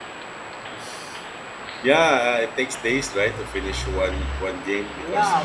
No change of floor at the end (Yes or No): No